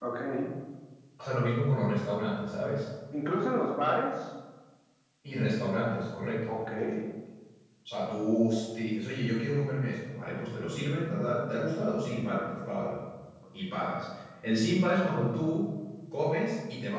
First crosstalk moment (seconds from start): none

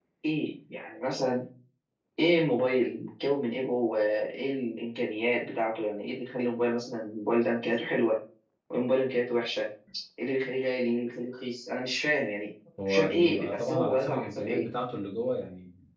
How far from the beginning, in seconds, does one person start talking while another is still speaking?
13 s

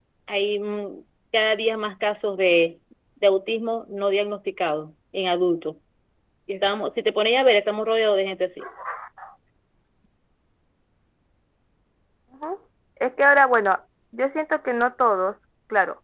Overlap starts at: none

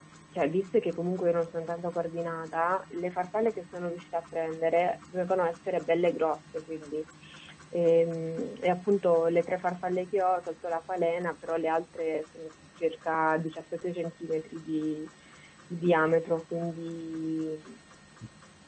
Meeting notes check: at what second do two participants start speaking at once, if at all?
none

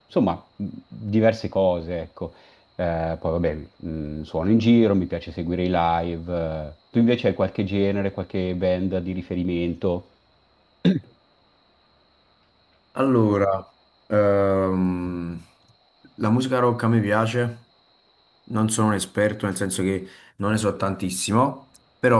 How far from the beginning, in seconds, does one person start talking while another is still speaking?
none

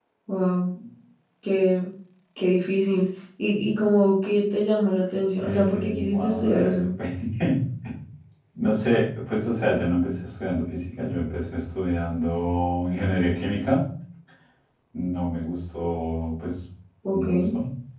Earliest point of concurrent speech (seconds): 5 s

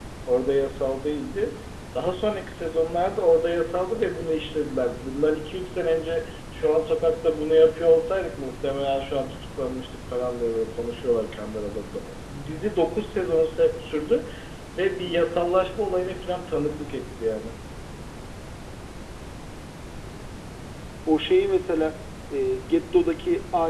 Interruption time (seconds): none

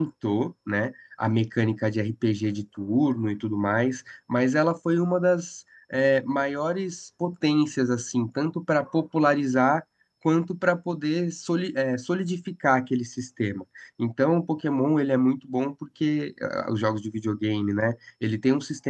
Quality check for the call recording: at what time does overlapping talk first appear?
none

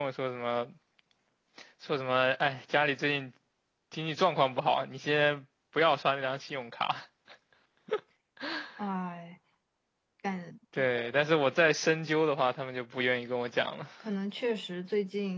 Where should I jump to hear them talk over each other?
none

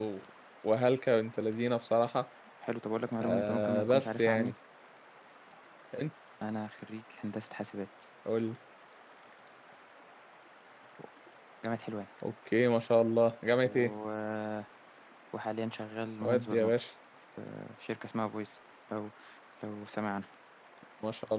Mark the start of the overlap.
3 s

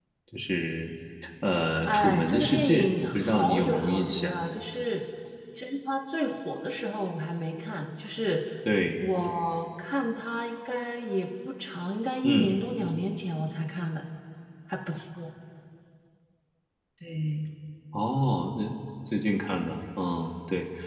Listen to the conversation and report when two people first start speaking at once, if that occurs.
2 s

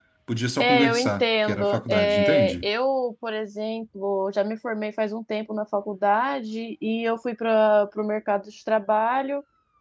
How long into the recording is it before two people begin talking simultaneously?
1 s

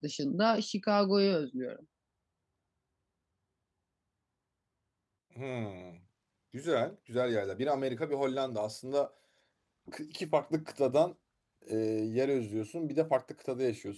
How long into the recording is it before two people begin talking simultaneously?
none

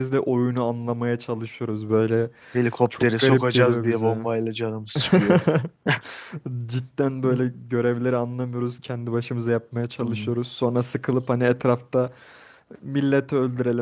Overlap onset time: 3 s

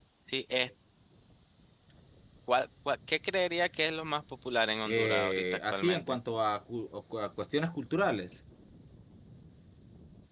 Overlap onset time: 5 s

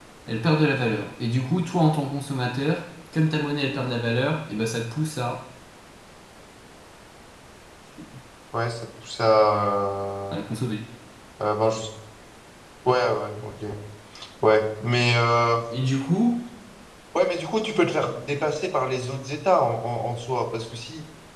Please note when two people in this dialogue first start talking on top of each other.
none

